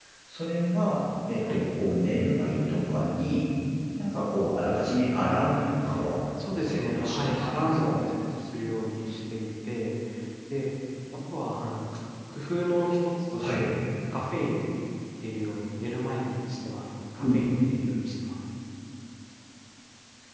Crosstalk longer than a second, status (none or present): present